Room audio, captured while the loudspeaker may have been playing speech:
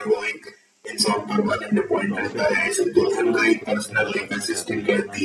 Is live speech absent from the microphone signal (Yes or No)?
No